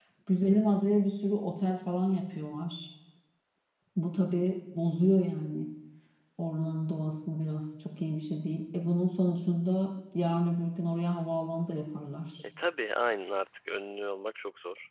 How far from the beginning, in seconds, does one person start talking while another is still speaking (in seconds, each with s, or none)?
none